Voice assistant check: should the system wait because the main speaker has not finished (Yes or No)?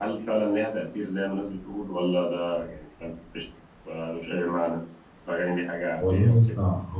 No